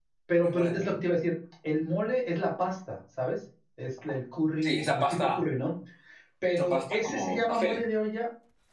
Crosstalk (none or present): present